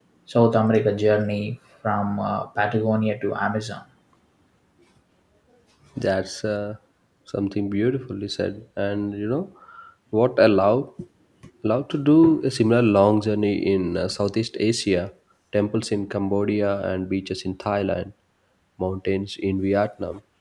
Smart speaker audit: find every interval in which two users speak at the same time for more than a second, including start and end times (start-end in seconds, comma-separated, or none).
none